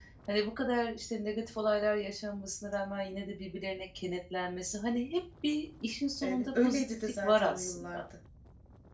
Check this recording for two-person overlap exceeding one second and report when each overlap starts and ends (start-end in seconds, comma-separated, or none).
6.2-8.0